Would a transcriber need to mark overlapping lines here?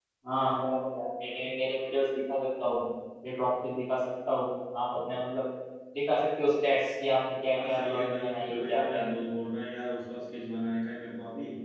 Yes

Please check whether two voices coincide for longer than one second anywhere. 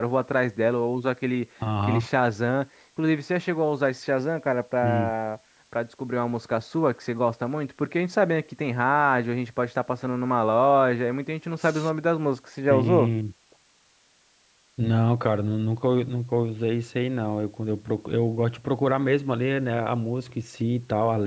No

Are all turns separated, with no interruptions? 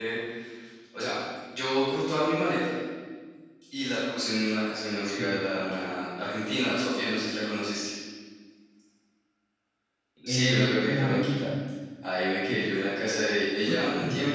No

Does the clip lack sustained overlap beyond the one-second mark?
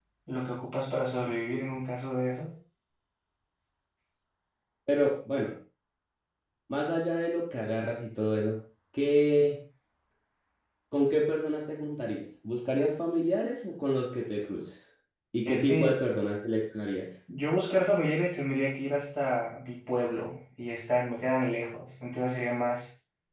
Yes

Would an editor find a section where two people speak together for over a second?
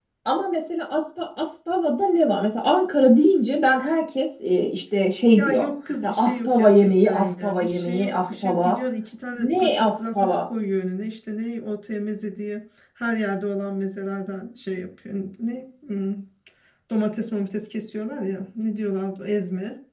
Yes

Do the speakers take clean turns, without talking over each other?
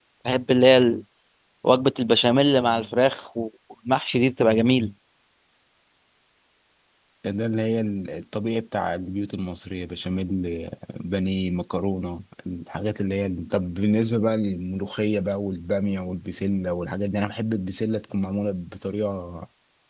Yes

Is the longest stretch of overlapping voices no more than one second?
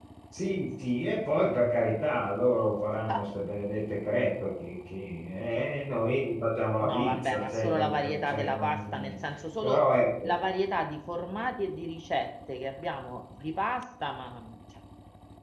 No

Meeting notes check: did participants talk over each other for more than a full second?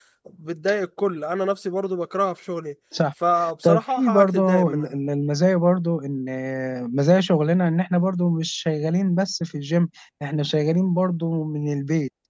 Yes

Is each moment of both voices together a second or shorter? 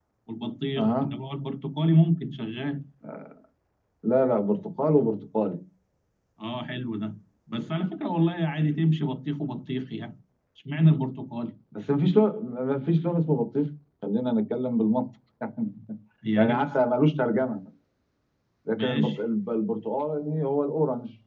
Yes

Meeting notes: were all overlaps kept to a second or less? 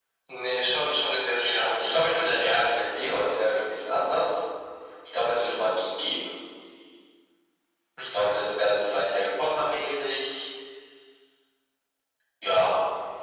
No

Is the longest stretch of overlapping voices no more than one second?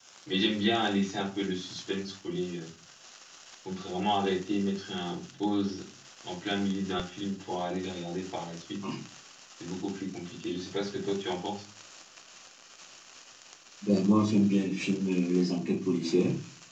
Yes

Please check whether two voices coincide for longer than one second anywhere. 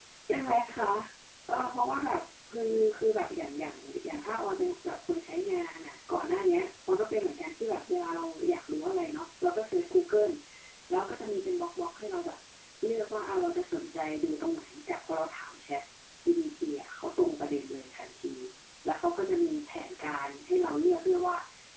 No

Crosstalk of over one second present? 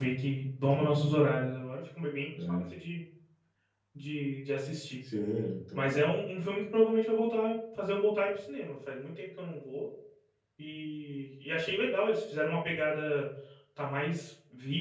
No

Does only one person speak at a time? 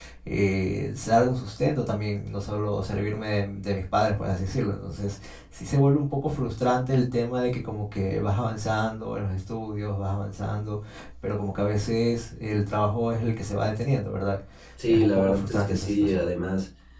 No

